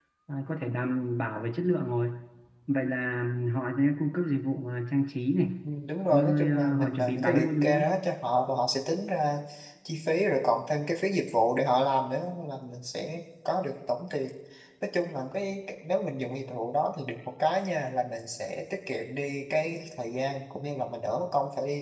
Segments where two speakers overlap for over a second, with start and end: 6.1-7.9

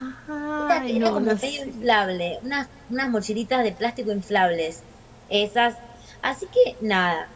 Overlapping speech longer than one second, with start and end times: 0.6-1.9

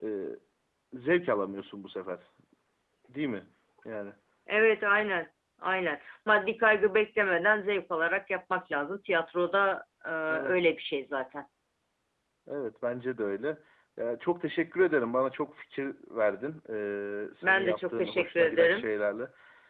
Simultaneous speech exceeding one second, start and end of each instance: 17.4-18.9

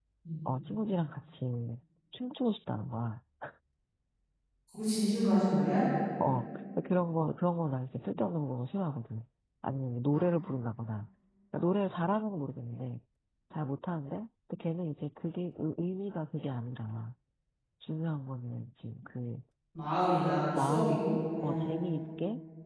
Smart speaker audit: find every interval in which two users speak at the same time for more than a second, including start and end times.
20.4-21.8

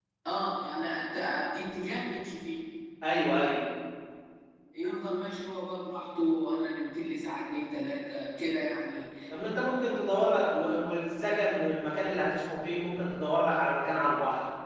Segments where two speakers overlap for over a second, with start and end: none

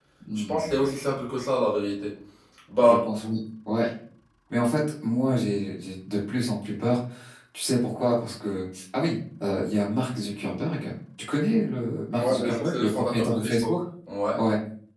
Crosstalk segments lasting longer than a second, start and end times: 12.1-13.8

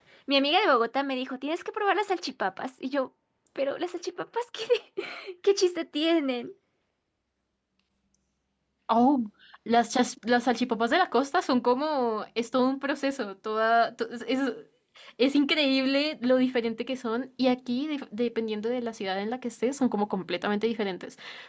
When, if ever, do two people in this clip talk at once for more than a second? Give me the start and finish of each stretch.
none

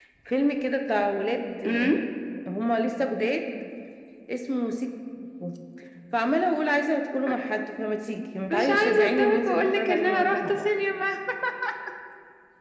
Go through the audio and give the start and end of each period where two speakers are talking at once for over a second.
8.5-10.7

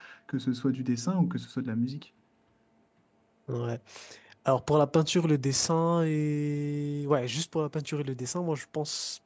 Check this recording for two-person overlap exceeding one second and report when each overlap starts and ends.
none

